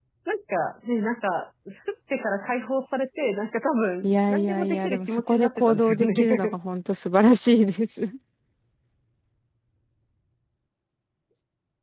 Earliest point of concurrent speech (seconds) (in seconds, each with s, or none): 4.0 s